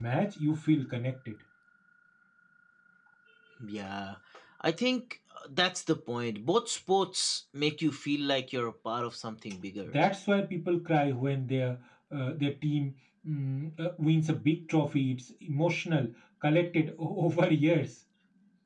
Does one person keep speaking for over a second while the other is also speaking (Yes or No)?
No